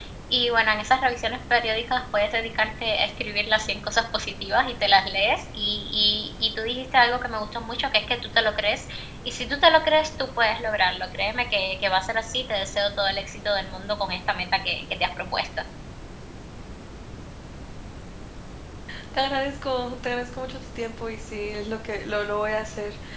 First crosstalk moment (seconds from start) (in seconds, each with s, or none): none